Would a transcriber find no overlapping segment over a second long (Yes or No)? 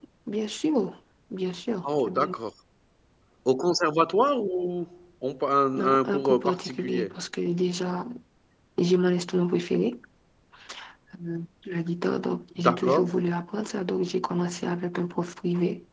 No